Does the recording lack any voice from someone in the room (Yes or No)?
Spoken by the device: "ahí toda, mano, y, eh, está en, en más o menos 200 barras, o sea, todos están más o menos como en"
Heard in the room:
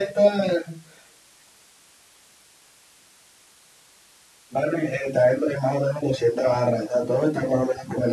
Yes